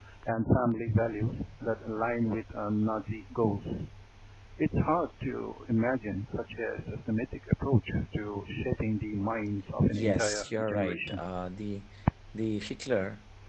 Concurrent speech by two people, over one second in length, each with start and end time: 9.9-11.2

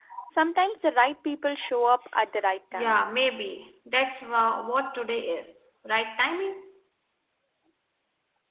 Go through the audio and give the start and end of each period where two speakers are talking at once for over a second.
none

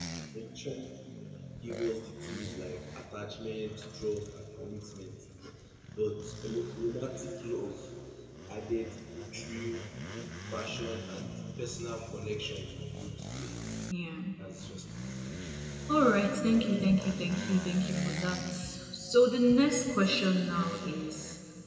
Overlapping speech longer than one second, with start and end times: none

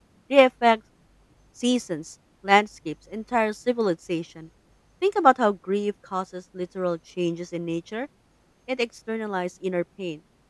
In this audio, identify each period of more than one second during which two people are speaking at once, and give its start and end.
none

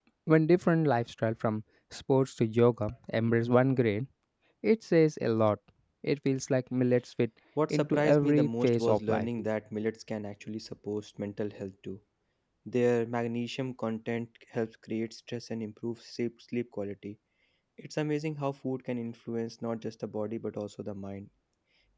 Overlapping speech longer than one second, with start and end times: 7.7-9.3

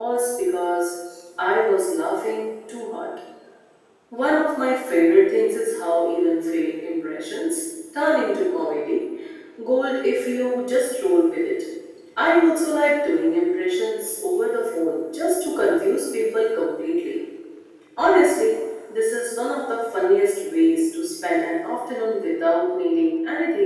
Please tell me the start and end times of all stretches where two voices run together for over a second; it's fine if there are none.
none

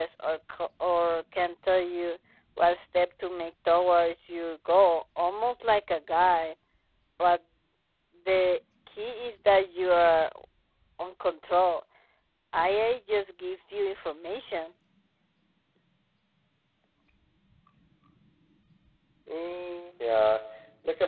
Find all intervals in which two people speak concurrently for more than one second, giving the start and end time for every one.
none

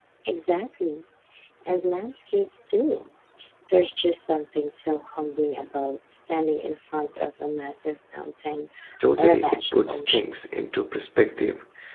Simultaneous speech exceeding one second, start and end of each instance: 9.2-10.4

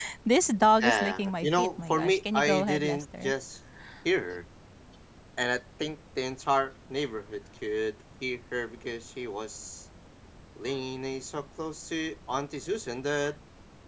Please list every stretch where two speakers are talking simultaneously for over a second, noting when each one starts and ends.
0.8-3.3

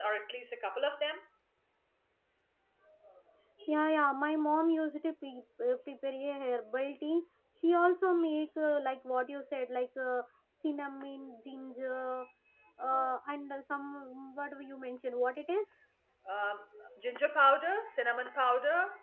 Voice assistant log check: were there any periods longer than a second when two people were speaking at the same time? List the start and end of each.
none

